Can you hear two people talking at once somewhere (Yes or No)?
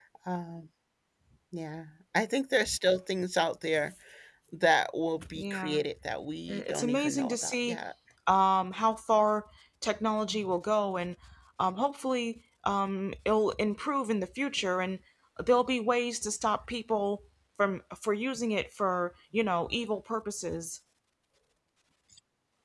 Yes